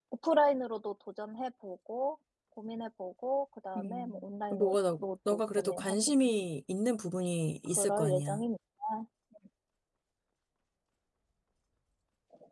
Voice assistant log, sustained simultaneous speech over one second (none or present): present